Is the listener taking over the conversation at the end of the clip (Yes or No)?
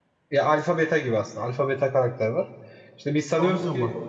No